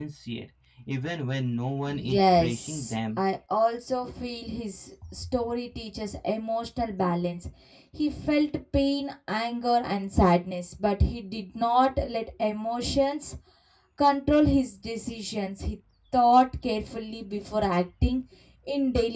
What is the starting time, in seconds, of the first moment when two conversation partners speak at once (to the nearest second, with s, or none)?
2 s